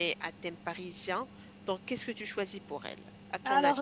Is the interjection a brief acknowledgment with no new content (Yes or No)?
No